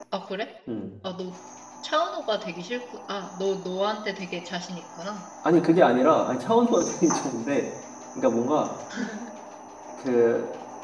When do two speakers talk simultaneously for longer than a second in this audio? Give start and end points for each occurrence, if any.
none

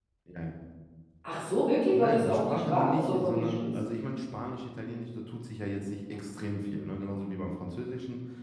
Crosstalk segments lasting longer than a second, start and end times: 1.9-3.7

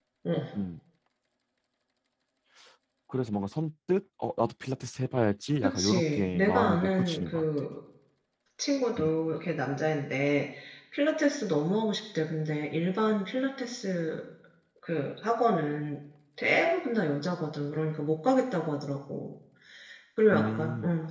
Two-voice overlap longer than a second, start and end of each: 5.6-7.4

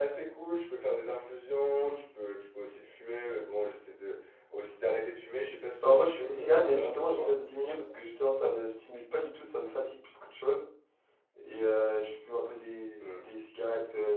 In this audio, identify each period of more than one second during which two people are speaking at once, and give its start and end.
5.8-7.3

